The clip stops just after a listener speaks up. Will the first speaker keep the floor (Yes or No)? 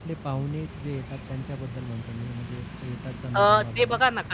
No